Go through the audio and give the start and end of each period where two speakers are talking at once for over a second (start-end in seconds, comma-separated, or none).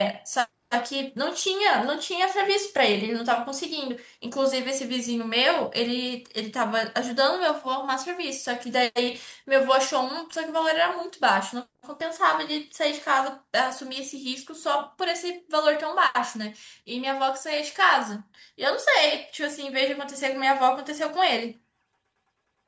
none